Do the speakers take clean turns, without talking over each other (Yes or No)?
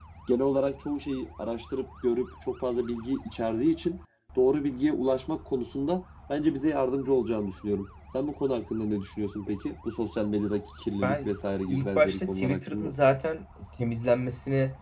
No